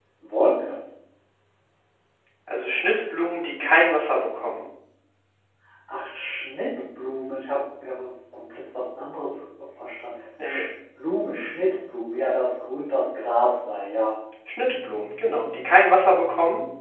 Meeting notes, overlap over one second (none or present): none